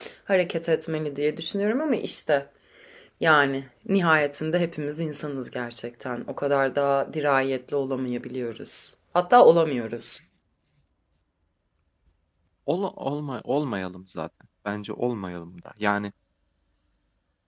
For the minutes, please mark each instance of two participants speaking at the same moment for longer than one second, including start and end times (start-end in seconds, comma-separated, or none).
none